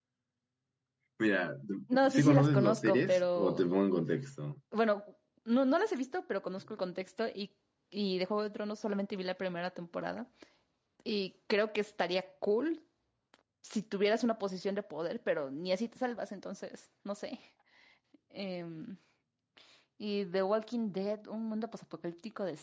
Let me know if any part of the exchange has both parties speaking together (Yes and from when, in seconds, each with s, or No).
Yes, from 2.1 s